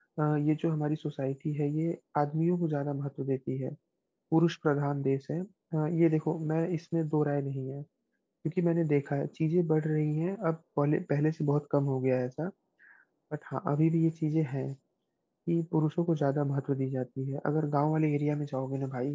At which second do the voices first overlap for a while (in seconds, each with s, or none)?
none